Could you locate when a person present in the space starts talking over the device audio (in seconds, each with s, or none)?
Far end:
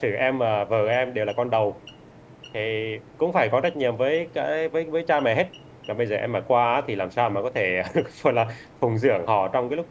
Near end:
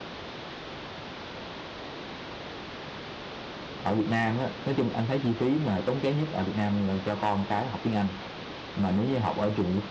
3.8 s